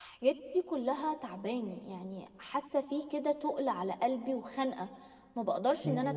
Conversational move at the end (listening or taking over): taking over